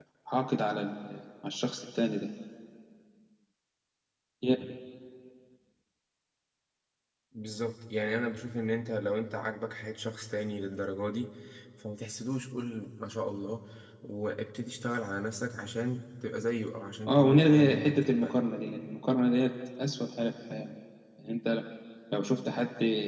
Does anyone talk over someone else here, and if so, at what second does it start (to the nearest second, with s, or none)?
17 s